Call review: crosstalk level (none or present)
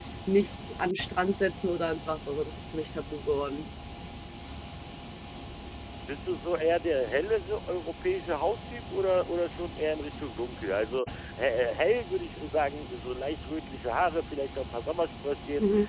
none